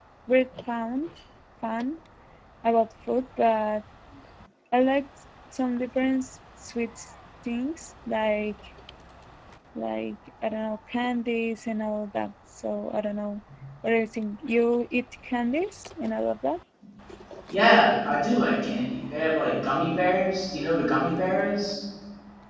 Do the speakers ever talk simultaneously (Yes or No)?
No